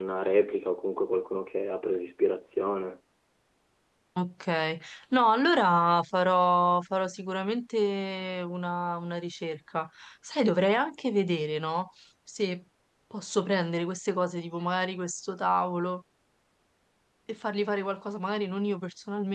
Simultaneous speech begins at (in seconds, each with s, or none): none